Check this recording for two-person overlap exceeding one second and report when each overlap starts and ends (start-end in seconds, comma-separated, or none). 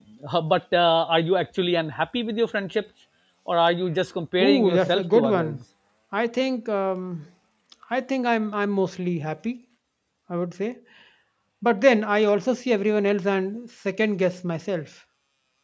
4.4-5.6